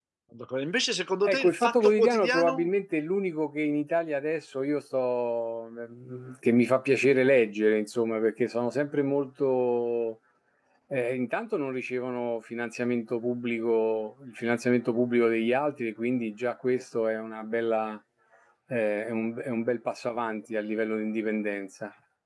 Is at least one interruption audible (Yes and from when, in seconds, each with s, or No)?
Yes, from 1.2 s